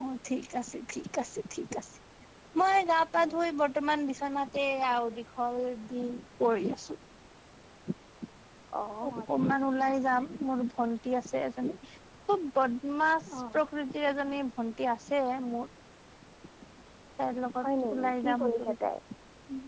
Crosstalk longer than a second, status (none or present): present